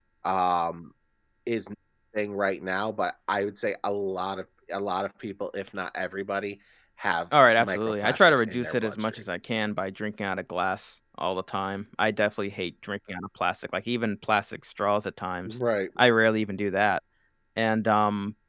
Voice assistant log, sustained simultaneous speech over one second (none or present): present